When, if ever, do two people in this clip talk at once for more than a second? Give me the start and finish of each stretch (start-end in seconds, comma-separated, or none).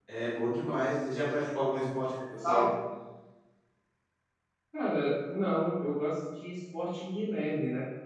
none